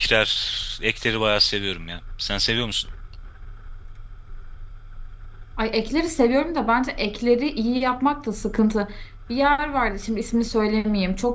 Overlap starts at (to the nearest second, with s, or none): none